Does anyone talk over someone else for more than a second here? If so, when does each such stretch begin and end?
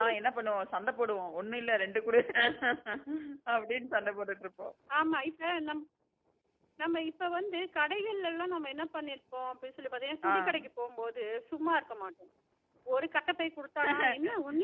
none

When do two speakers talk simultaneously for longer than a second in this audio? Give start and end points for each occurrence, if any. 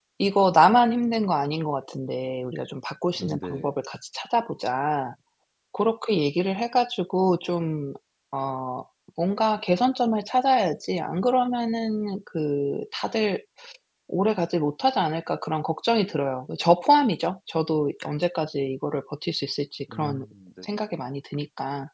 none

